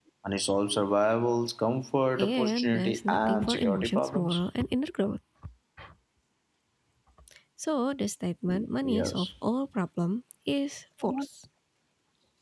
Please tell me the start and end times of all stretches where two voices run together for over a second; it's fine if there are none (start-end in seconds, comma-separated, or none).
2.2-4.4